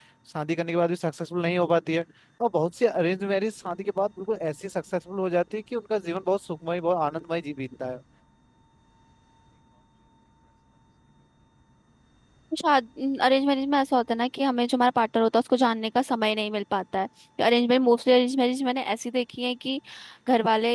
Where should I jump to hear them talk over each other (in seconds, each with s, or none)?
none